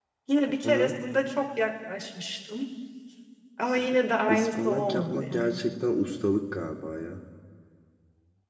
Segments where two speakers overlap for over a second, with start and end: 4.3-5.6

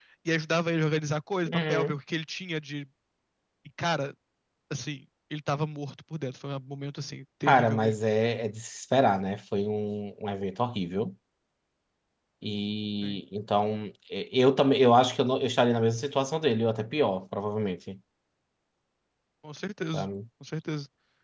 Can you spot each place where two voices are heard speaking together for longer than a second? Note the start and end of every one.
none

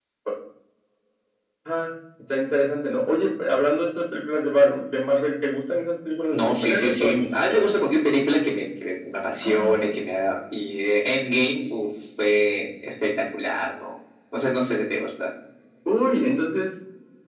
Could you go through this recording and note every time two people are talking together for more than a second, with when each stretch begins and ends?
6.3-7.7

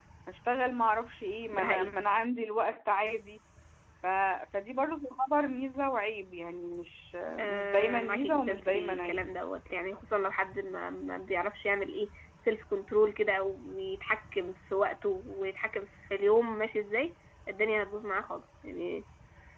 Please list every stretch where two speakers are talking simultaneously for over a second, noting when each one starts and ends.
7.4-9.2

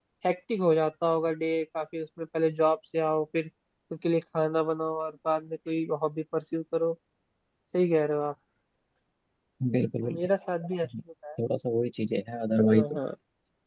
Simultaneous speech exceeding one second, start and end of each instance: none

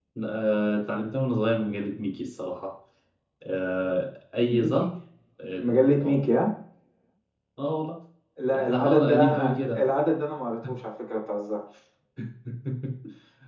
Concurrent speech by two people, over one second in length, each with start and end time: 8.6-9.8

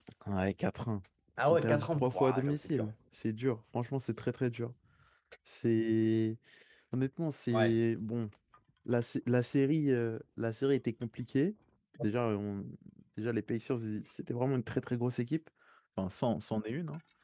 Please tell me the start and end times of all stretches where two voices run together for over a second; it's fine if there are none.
1.4-2.9

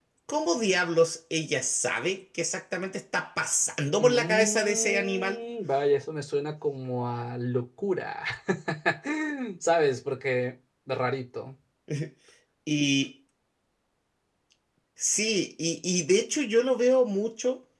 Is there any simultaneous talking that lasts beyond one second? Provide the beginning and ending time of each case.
4.0-5.4

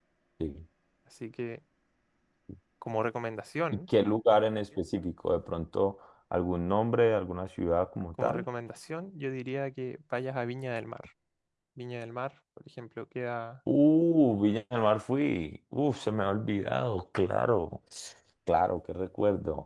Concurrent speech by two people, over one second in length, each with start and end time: none

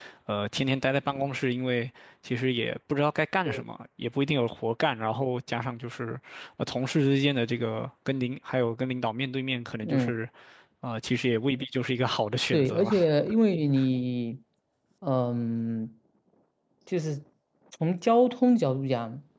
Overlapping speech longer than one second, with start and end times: none

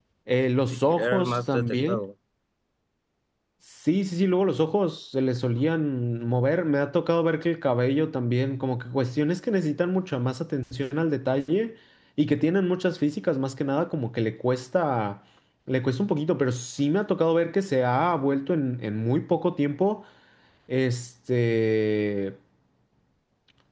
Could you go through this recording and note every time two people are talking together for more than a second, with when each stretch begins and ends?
0.7-2.0

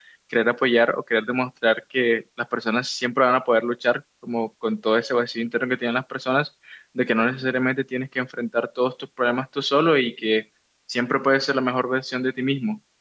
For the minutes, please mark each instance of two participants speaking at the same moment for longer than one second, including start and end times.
none

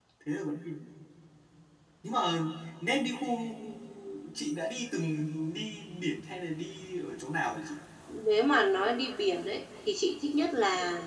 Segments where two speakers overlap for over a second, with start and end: none

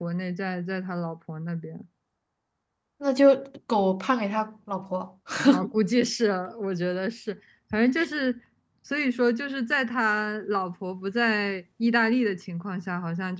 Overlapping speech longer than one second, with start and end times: none

